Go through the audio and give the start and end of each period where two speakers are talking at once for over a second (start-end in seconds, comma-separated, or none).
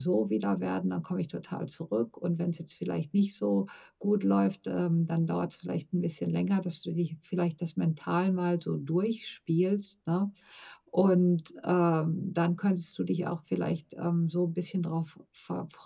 none